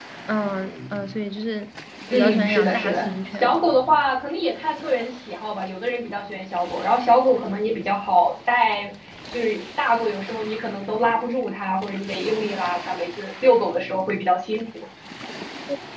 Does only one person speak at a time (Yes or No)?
No